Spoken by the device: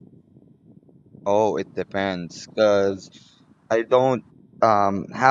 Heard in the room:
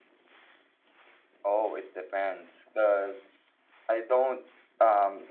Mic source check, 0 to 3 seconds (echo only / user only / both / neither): echo only